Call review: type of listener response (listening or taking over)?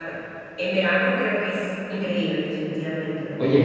taking over